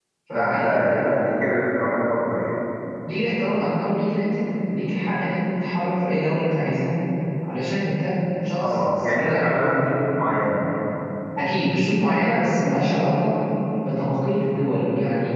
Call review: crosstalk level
present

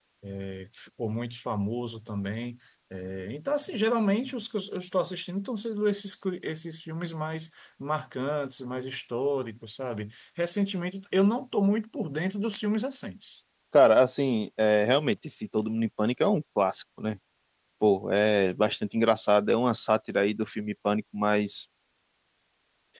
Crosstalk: none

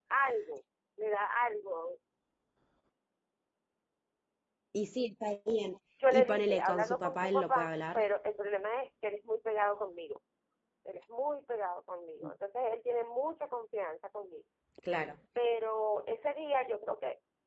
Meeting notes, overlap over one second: present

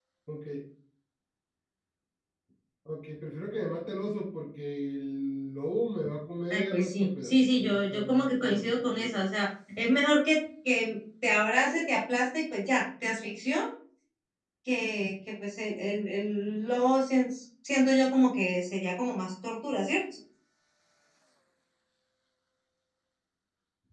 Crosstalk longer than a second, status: present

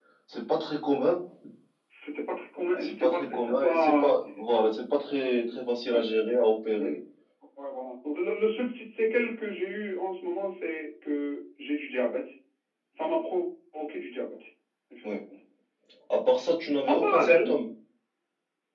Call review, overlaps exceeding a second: present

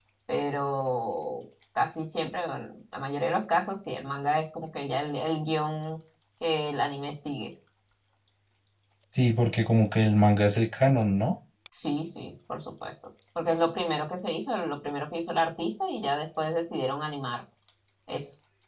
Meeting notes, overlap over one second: none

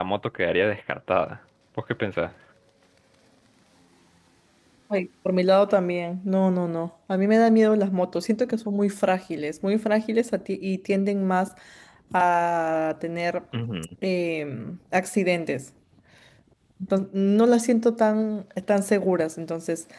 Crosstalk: none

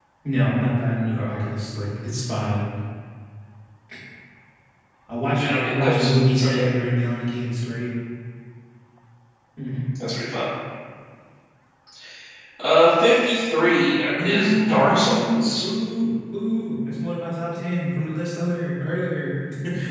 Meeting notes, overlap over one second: present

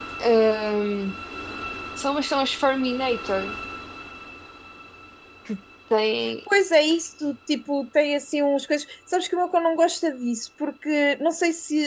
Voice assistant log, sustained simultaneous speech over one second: none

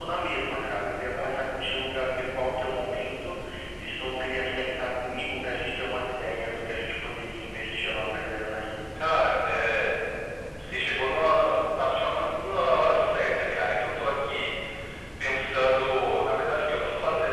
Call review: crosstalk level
none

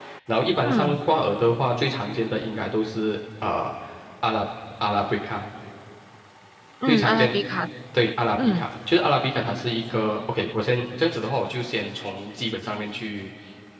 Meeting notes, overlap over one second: none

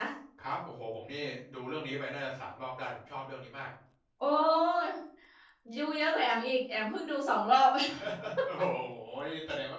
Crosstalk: none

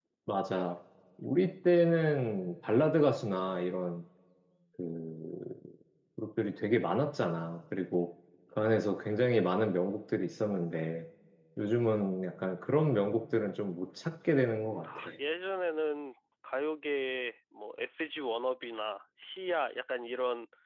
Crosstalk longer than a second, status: none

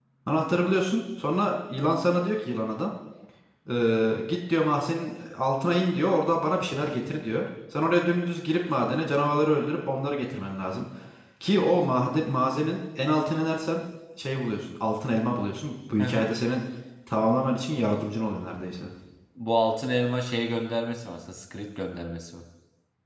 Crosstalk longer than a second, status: none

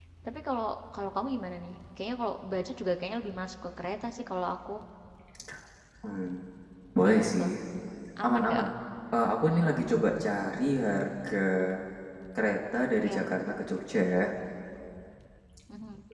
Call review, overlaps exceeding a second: none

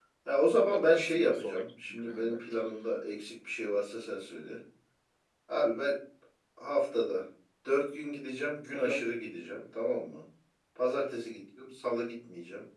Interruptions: present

